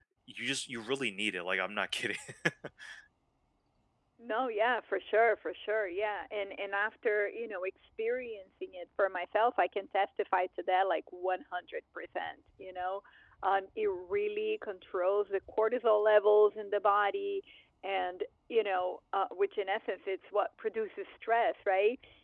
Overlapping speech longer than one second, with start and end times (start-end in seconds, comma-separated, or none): none